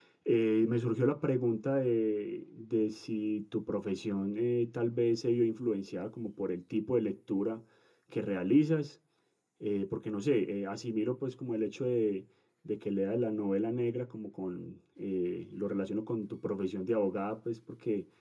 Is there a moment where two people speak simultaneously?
No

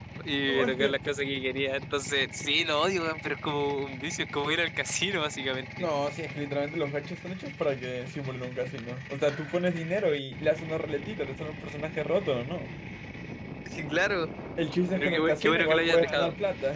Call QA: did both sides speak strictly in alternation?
No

